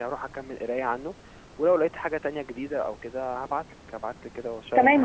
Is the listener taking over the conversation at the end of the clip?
Yes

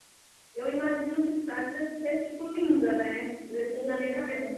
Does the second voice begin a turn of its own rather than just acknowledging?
No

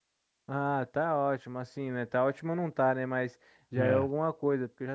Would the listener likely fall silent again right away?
Yes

